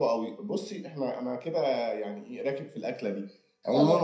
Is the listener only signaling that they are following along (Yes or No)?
Yes